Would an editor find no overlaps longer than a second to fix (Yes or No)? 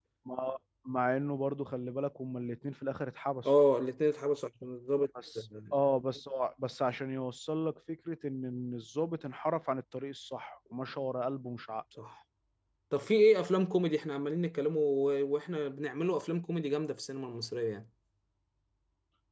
Yes